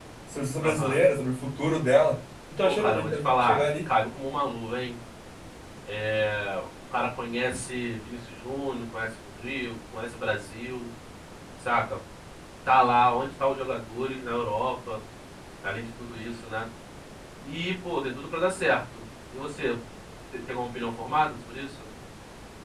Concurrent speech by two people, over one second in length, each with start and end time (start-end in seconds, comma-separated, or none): 2.6-3.9